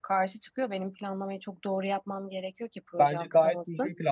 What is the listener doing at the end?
taking over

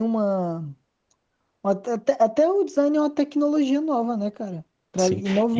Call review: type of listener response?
taking over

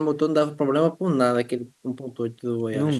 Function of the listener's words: taking over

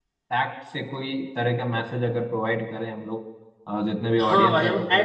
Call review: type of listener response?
taking over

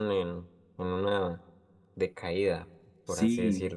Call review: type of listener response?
taking over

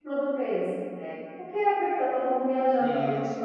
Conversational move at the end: taking over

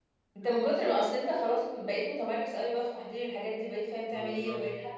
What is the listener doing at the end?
listening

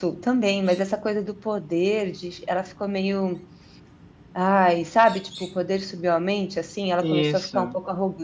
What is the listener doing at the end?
listening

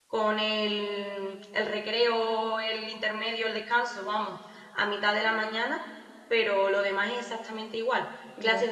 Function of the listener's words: listening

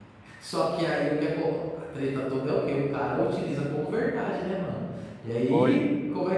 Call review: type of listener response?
listening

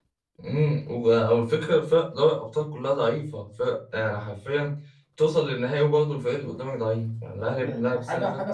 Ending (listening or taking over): taking over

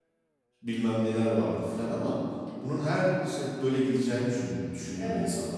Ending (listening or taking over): listening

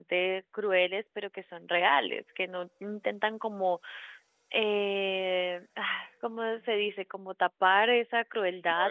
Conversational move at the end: listening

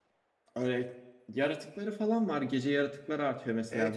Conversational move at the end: taking over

